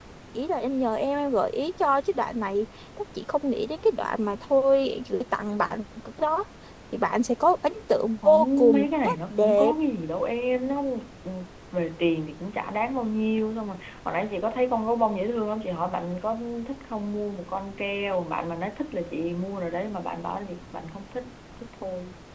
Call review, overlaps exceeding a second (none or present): present